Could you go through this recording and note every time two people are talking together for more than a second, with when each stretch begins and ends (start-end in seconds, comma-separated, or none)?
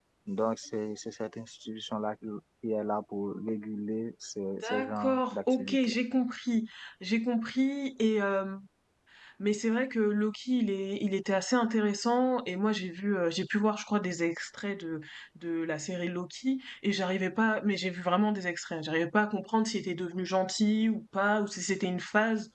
4.6-5.9